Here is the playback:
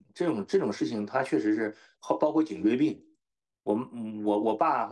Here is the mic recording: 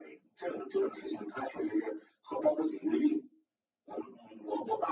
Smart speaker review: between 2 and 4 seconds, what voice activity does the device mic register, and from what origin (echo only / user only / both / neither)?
echo only